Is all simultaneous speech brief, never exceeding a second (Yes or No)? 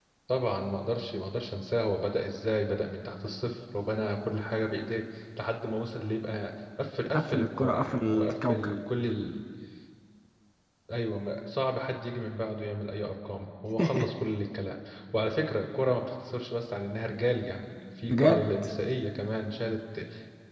No